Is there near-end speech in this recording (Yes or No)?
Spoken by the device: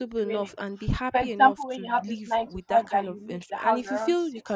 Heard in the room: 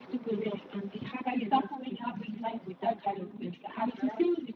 No